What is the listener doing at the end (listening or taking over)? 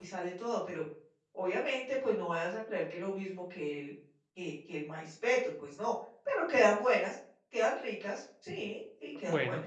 taking over